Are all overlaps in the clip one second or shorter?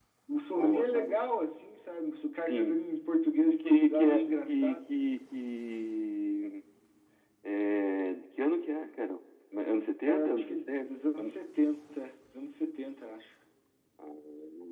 No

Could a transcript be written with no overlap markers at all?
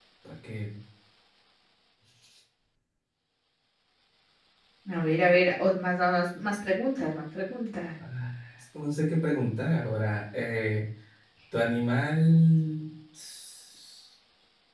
Yes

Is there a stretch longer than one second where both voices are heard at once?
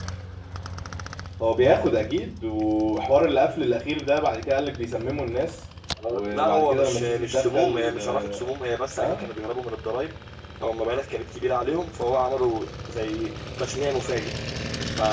Yes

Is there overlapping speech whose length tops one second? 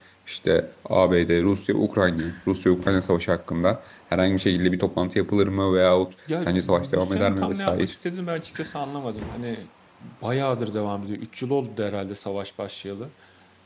Yes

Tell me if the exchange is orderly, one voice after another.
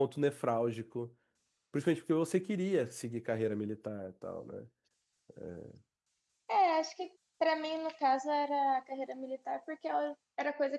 Yes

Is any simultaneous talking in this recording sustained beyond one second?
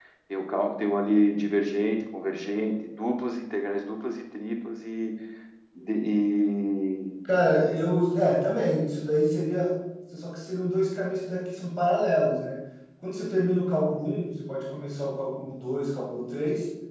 No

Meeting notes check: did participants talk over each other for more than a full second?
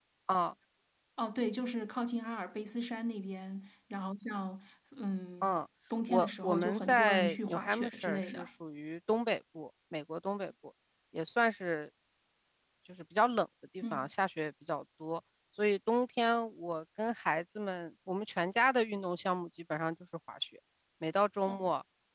Yes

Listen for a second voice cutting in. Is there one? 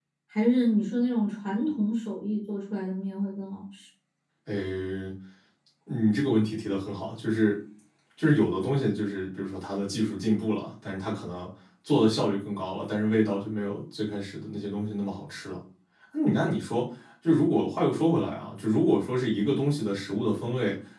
No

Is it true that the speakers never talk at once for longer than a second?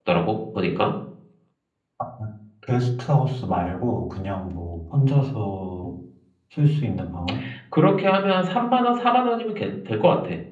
Yes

